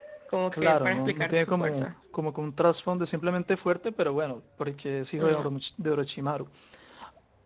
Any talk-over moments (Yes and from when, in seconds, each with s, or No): Yes, from 0.5 s